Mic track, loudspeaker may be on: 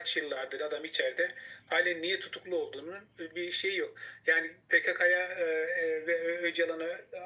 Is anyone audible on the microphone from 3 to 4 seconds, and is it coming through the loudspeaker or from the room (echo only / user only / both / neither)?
echo only